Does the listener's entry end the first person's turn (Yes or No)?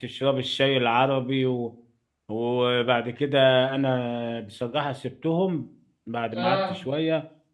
No